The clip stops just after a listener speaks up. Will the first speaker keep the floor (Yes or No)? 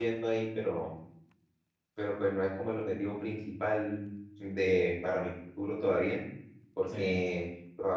Yes